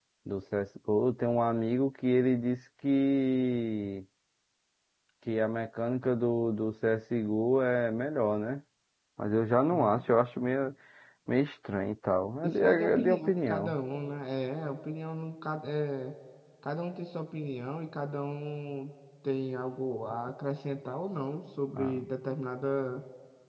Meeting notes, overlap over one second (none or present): present